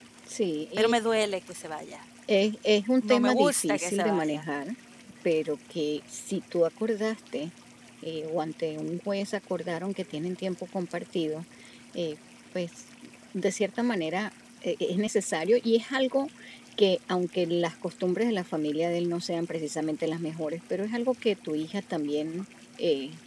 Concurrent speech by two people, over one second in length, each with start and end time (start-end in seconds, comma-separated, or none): 3.1-4.4